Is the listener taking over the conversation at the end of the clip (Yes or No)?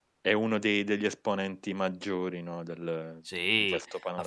Yes